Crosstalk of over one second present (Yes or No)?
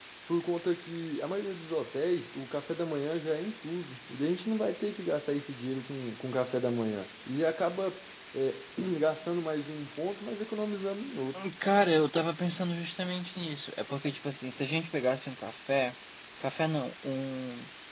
No